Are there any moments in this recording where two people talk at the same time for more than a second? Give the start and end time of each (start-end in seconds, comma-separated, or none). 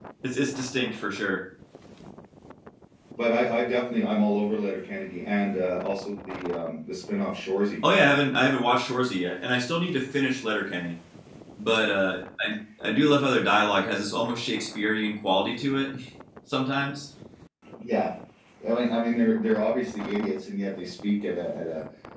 none